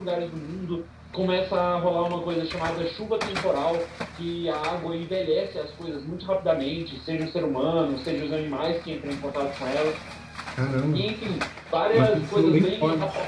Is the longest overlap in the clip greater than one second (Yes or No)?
Yes